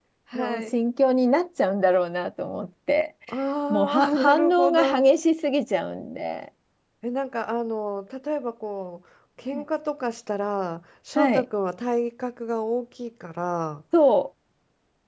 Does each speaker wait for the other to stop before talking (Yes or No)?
No